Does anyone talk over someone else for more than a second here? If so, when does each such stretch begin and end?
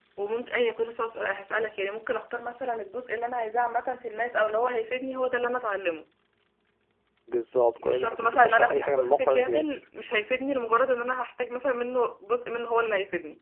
7.8-9.8

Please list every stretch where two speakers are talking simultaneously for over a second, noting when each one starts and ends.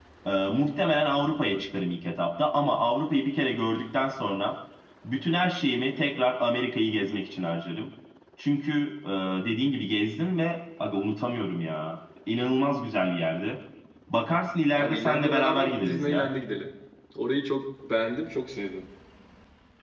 14.8-16.3

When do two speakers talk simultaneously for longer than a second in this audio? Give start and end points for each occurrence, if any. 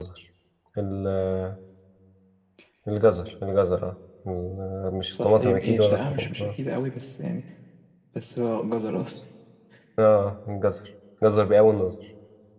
5.1-6.6

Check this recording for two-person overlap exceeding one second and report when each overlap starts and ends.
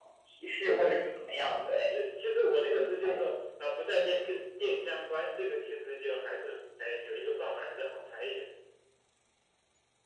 none

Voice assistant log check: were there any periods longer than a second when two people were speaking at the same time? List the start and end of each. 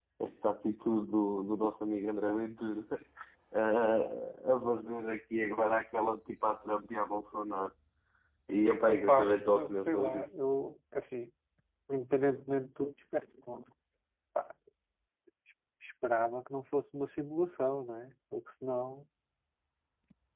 8.8-10.3

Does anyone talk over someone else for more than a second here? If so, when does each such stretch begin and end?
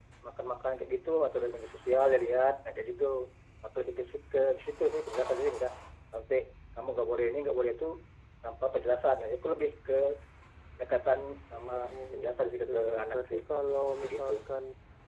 12.1-13.4

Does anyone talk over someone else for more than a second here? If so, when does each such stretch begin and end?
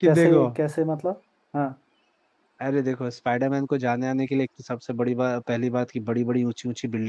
none

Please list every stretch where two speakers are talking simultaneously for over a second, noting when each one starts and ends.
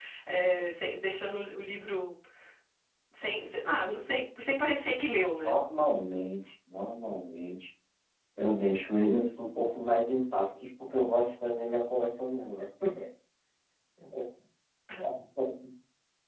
none

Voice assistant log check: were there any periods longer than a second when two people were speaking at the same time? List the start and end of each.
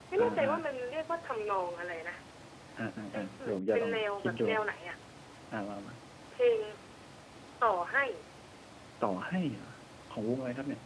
3.1-4.4

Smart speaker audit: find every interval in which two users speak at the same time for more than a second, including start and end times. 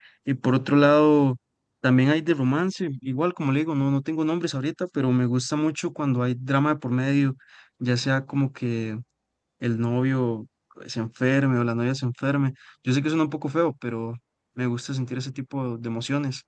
none

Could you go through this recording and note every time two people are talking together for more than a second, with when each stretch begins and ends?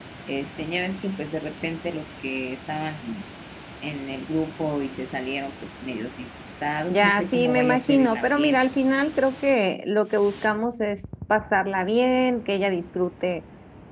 6.9-8.6

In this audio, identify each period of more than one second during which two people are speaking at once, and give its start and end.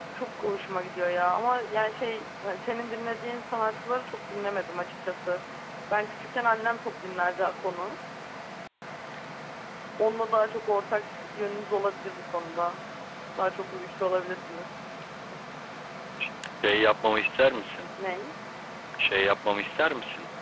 none

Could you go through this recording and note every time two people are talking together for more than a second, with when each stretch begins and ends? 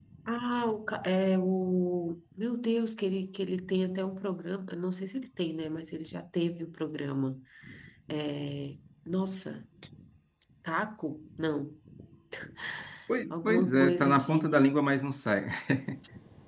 13.3-14.7

